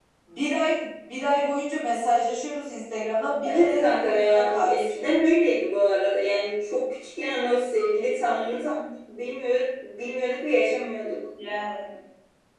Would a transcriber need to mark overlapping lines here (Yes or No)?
Yes